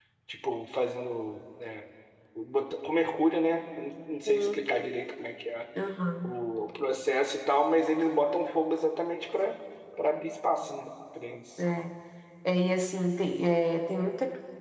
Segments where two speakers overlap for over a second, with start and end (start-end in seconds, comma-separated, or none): none